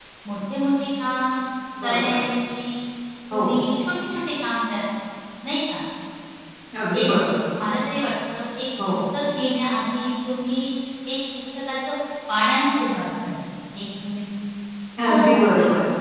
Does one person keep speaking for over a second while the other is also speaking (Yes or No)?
No